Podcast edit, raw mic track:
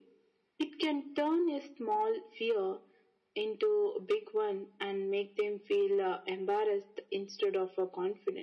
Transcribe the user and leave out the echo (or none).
none